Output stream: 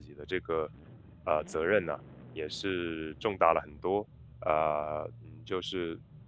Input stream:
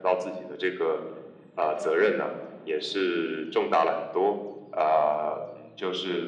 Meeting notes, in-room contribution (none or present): none